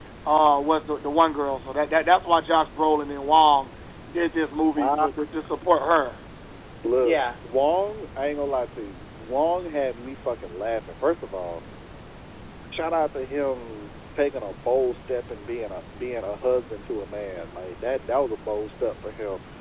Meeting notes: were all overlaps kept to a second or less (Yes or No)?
Yes